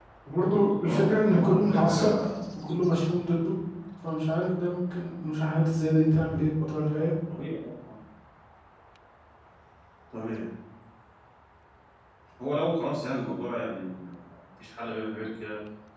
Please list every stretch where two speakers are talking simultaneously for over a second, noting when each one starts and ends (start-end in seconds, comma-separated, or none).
0.8-2.0